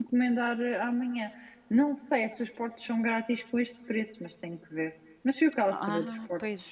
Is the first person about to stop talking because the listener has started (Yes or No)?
Yes